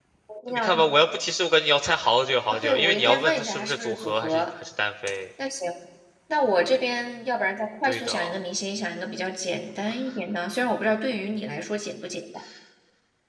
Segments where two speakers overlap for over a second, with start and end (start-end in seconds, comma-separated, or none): 2.5-4.4